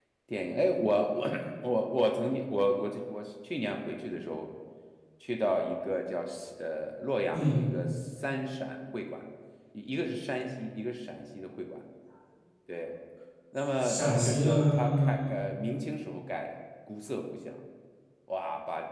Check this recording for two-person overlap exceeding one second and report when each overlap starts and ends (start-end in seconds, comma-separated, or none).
13.8-15.4